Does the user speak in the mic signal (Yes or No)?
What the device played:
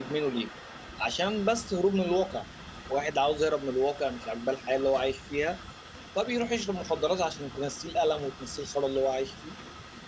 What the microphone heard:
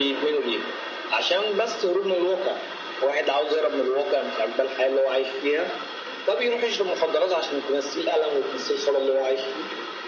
No